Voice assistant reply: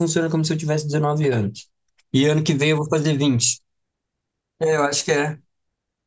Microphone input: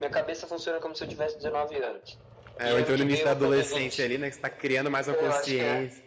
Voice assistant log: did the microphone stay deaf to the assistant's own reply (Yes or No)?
No